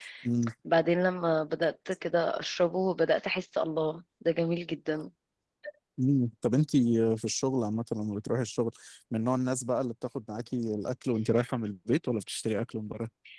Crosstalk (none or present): none